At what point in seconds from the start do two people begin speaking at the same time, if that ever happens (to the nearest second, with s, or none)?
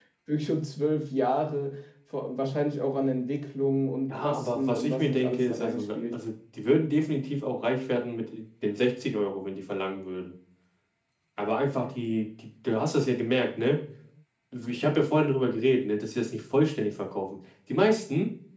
4 s